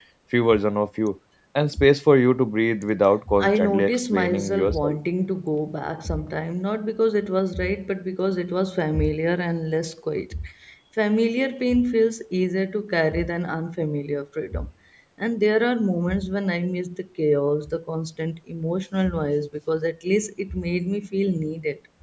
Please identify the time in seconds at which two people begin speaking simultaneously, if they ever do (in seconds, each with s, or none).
3.3 s